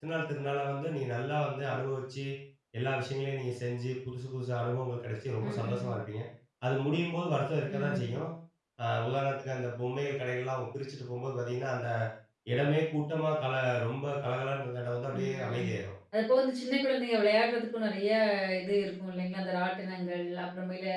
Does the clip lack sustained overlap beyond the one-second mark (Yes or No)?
Yes